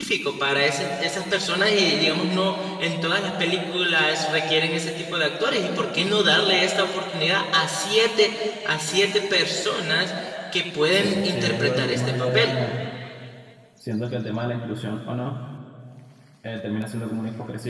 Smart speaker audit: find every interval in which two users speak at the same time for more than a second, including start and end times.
10.9-12.5

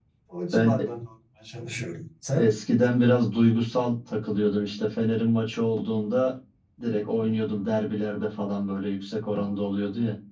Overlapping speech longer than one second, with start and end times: none

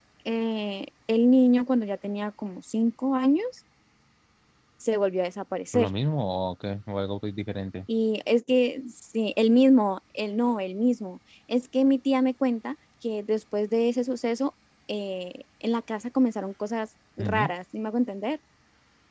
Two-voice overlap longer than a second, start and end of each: none

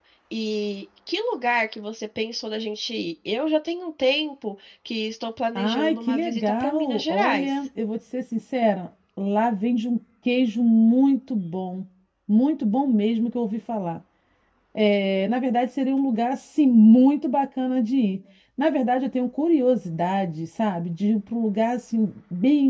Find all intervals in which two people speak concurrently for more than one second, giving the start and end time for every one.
5.6-7.5

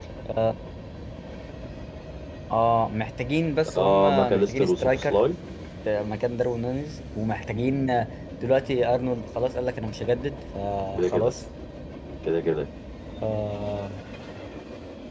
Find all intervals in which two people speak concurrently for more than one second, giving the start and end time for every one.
3.8-5.2

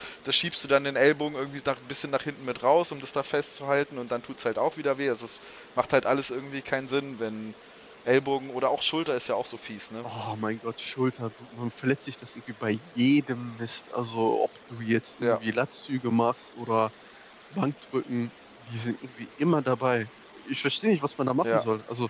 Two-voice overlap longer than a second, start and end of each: none

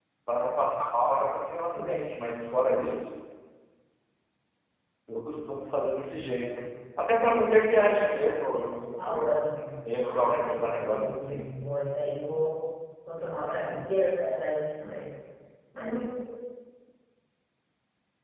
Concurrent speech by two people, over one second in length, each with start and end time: 10.1-11.5

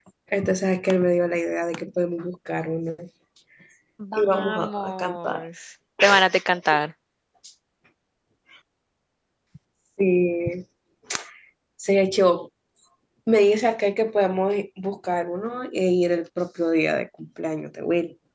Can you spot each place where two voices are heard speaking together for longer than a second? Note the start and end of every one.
4.2-5.4

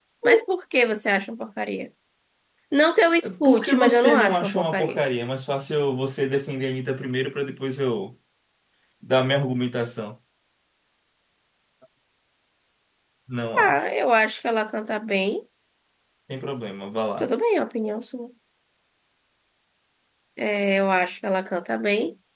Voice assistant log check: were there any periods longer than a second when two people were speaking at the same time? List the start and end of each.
3.4-5.0

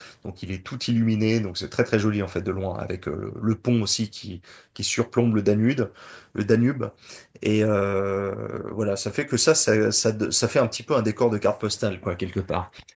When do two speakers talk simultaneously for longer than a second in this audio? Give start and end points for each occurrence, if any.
none

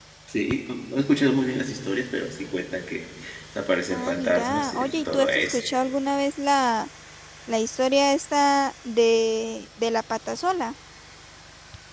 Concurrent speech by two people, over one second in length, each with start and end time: 3.9-5.6

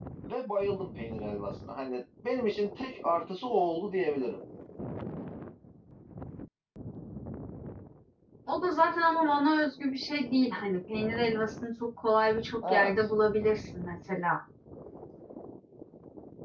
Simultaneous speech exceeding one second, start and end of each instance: none

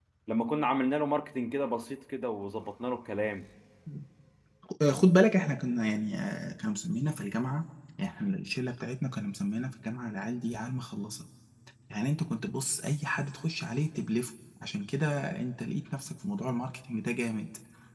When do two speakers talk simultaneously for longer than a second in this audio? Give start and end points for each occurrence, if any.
none

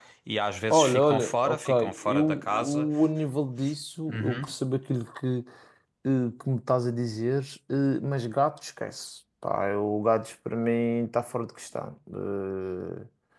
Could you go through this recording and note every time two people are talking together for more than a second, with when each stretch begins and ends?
0.7-2.9

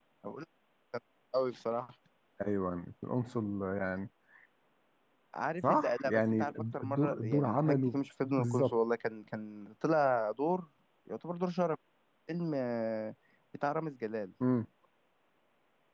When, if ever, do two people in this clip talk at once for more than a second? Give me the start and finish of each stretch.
5.6-8.8

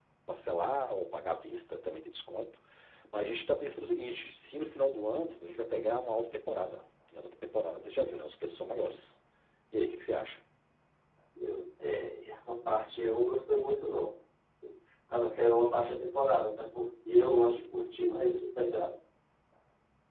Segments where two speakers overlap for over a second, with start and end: none

